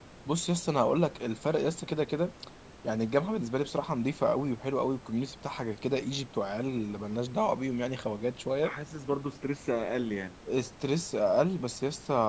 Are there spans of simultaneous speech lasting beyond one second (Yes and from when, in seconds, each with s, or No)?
No